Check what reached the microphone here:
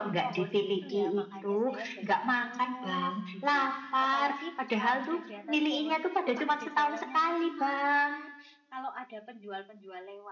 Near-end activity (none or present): present